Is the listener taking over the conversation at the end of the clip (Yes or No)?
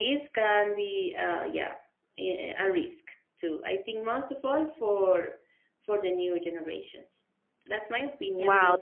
Yes